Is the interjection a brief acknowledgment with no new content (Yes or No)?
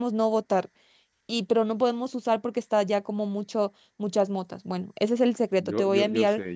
No